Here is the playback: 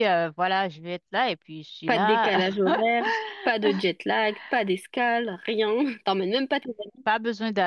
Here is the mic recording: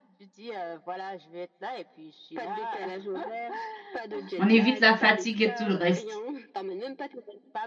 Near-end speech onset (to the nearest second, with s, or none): 4 s